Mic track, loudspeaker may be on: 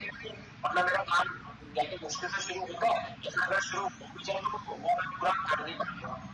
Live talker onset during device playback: none

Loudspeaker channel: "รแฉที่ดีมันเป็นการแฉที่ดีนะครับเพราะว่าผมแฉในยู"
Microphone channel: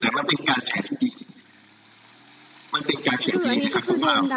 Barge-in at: 3 s

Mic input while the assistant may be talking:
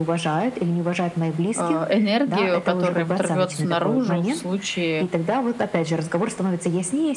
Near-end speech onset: 2 s

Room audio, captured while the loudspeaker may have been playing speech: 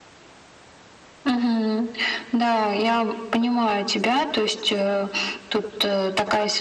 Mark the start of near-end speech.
none

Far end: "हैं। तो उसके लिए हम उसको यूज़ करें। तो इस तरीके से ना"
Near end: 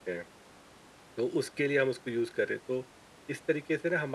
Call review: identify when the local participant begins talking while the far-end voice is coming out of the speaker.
none

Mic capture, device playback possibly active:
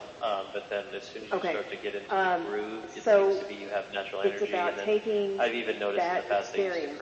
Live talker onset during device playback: none

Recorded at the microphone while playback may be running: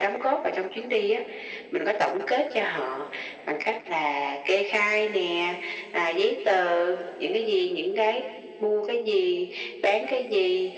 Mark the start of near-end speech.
none

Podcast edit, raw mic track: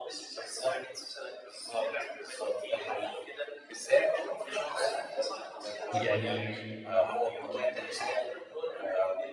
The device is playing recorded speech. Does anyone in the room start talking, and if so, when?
6 s

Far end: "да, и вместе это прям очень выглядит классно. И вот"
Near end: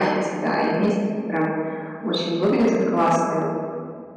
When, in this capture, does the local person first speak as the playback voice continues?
none

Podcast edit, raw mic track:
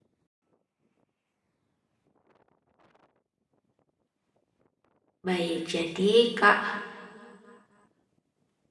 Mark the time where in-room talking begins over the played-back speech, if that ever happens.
5 s

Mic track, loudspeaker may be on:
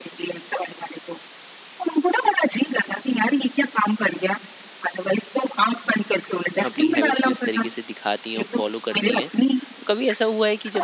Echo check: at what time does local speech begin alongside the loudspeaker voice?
7 s

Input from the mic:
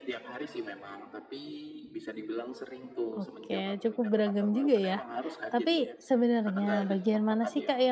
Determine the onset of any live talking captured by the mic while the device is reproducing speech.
3 s

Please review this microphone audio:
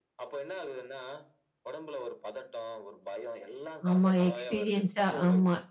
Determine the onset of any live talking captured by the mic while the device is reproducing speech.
4 s

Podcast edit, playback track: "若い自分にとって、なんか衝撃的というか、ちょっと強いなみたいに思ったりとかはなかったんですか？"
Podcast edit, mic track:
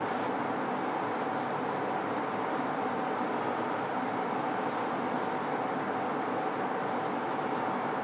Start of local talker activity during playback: none

